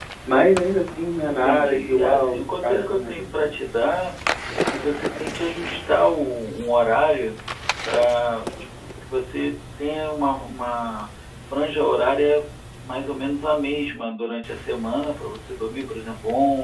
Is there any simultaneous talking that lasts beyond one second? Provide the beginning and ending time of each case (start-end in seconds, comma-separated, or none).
1.2-3.6